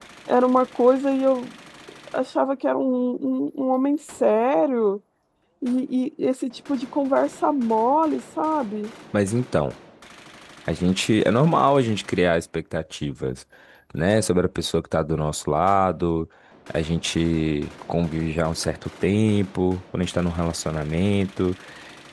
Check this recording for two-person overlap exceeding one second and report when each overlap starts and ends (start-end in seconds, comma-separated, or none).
none